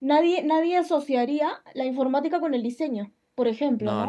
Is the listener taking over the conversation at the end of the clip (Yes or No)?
Yes